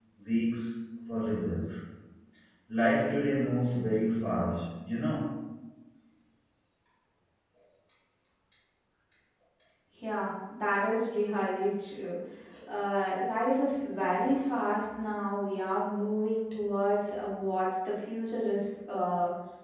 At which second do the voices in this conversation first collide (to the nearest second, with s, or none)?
none